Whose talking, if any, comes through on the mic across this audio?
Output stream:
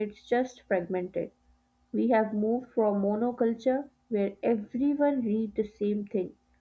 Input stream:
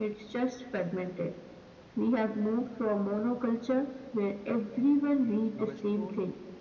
both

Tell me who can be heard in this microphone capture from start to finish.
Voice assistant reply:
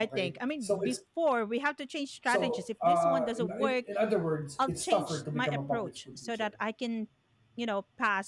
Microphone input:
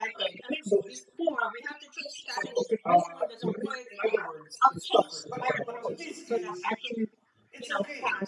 both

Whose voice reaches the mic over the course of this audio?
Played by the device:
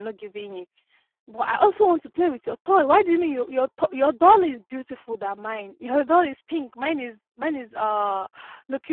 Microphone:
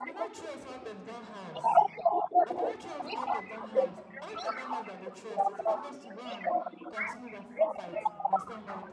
both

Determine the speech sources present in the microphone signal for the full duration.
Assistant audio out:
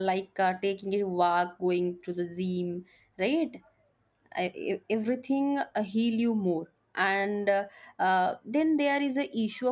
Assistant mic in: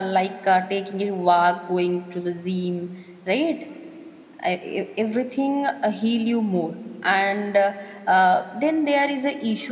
echo only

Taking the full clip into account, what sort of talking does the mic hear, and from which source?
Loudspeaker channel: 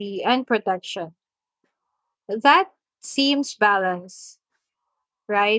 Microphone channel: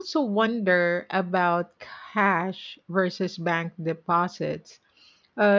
user only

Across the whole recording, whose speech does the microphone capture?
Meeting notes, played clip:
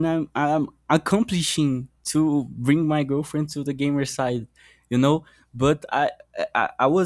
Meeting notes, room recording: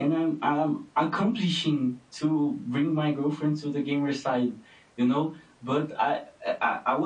echo only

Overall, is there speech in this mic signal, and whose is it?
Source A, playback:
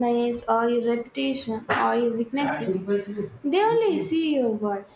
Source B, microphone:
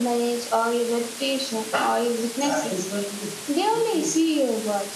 echo only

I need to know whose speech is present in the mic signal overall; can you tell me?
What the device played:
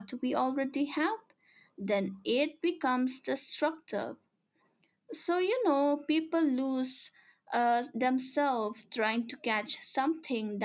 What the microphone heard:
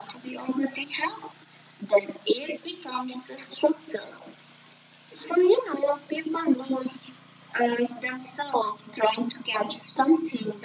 echo only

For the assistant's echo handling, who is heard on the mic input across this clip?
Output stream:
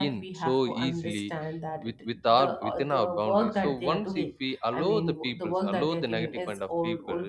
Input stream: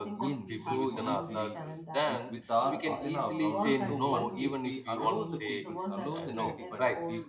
both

